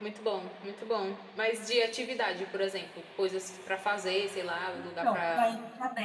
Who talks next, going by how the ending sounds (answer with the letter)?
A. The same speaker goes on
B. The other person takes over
B